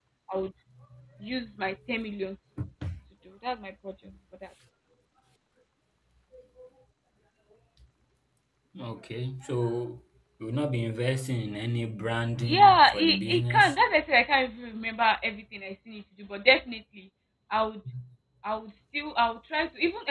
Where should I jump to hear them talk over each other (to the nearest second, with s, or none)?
12 s